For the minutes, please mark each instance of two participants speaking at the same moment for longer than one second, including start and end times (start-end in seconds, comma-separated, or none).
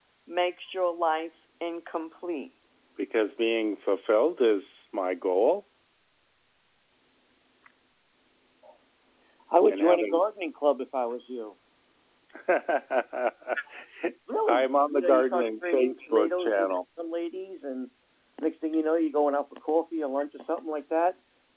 14.5-16.7